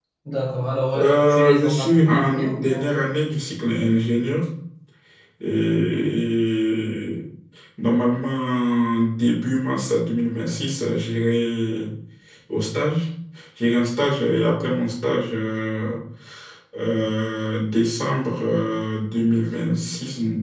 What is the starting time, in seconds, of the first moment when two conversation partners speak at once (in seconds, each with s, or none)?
1.0 s